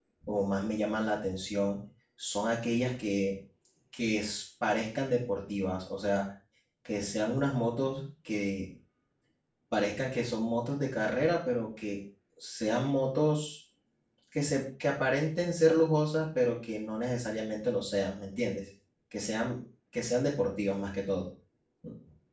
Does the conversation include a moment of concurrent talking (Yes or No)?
No